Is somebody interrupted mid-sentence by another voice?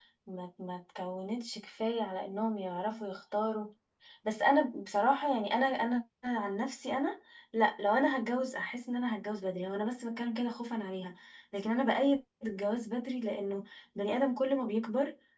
No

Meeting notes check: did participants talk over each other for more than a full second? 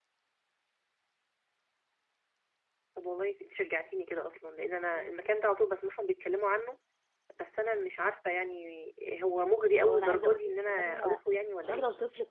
Yes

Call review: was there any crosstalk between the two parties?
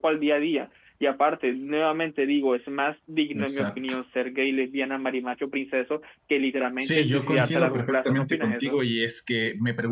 Yes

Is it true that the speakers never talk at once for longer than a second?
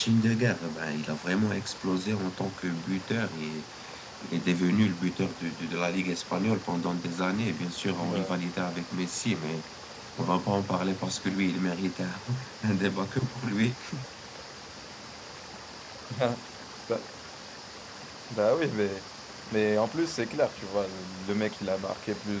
Yes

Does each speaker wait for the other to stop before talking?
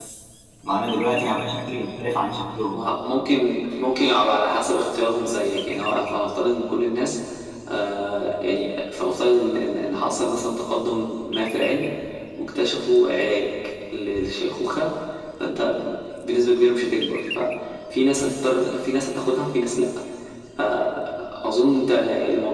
Yes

